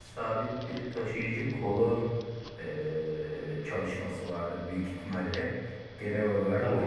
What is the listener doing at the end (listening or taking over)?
listening